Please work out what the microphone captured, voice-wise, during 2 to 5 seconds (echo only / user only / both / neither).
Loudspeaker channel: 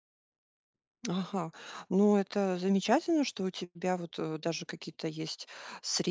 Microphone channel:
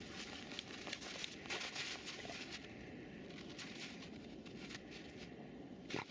neither